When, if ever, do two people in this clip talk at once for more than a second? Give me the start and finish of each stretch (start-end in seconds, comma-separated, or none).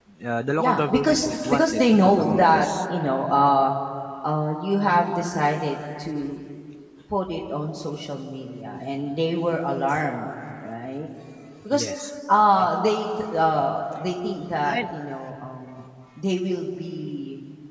0.6-2.7